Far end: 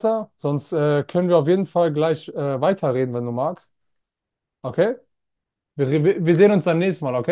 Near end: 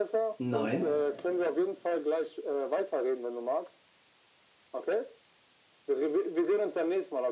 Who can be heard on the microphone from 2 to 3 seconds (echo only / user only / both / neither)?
echo only